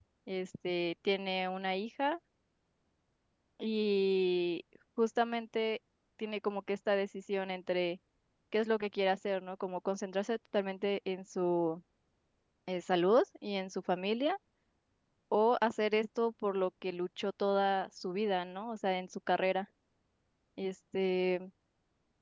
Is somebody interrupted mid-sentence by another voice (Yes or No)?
No